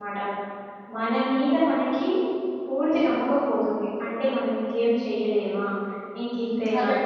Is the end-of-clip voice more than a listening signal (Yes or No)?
Yes